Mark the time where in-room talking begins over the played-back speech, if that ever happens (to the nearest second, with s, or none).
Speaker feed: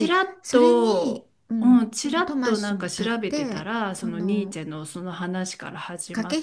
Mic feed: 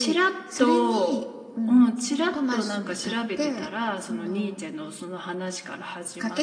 none